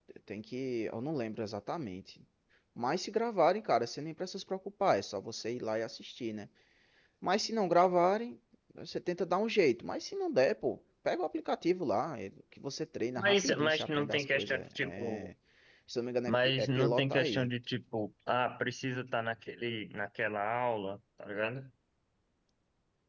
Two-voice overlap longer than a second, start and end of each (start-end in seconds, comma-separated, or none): 13.2-15.3, 16.3-17.5